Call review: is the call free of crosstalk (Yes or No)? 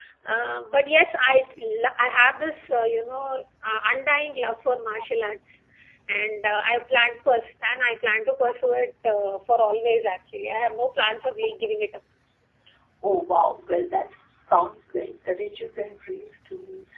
Yes